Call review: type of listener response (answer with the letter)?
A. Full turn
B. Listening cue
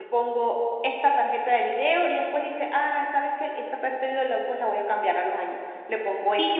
B